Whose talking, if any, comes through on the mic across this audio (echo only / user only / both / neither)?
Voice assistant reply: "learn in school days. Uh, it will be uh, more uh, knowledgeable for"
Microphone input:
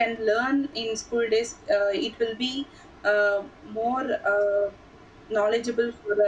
echo only